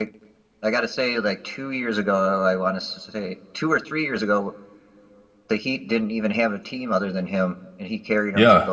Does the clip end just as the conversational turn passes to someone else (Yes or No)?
Yes